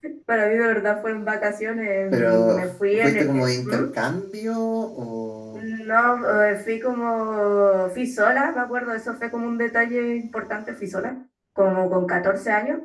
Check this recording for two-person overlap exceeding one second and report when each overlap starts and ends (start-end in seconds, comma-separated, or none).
2.1-3.8